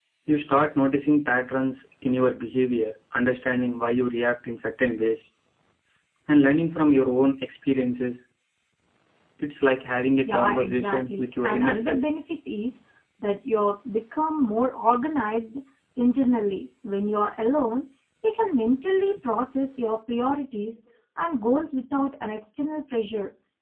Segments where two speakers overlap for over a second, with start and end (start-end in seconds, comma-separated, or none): 10.2-12.0